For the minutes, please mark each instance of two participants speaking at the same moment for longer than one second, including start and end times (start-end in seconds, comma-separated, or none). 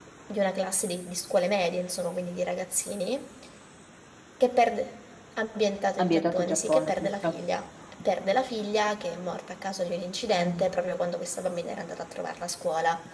6.0-7.4